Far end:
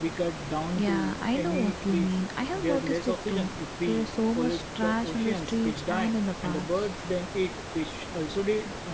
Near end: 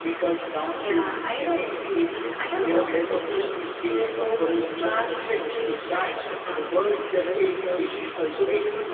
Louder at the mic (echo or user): echo